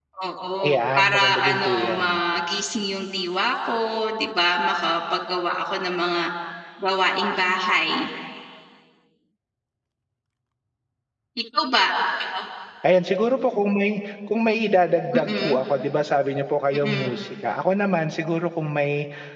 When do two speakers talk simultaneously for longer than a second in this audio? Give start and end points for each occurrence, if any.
0.7-2.1

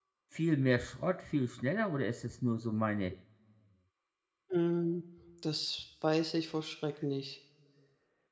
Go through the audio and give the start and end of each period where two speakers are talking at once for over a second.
none

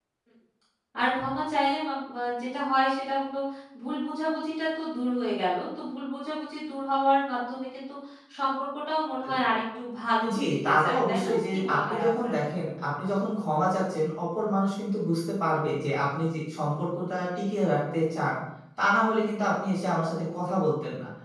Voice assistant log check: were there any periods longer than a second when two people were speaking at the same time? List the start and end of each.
10.4-12.4

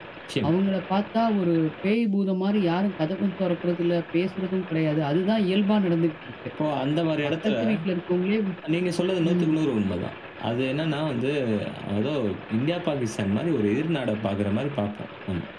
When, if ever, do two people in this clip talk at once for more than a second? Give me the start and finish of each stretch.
none

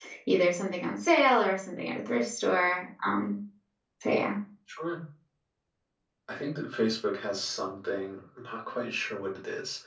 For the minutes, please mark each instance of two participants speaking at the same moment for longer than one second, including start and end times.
none

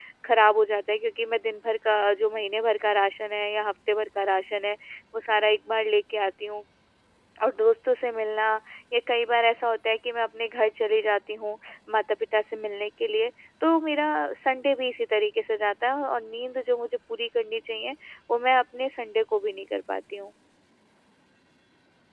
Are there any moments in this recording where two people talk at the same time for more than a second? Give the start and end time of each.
none

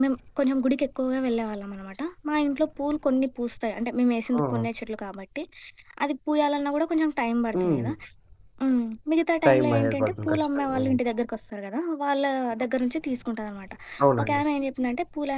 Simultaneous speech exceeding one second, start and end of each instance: 9.5-11.0

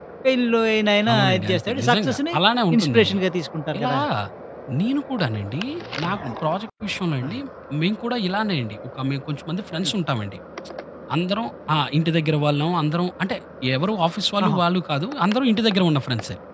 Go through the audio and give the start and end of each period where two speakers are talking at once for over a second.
1.1-2.4

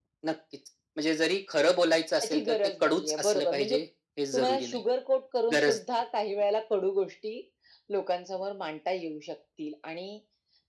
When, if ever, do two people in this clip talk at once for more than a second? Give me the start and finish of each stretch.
2.2-3.8

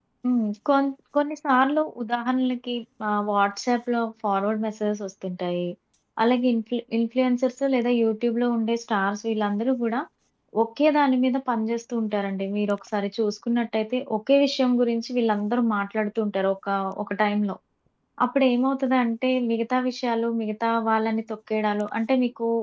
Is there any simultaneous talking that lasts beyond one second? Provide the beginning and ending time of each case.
none

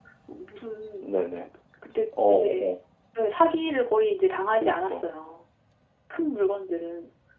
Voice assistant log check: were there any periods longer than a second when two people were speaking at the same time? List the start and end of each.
none

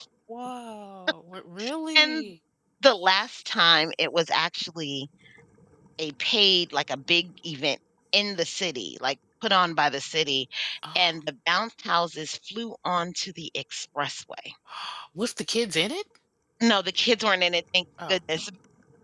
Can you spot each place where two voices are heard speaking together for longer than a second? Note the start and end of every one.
none

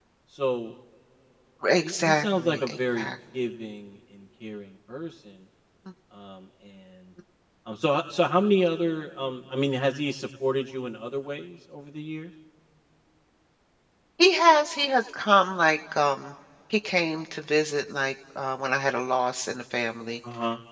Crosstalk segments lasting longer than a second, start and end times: 1.8-3.1

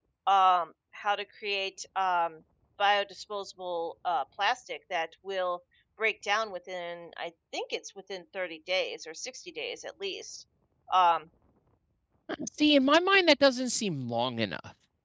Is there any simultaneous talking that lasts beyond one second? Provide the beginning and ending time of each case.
none

